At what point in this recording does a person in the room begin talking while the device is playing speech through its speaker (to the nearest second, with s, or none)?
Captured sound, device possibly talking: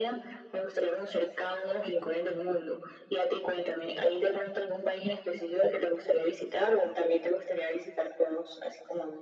none